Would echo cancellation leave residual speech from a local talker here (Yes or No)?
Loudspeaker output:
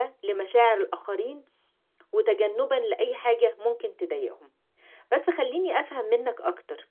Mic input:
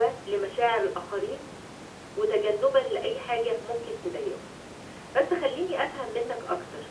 No